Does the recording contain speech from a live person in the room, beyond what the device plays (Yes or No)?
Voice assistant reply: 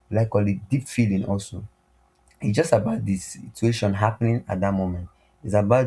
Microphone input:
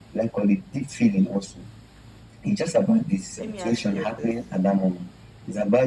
Yes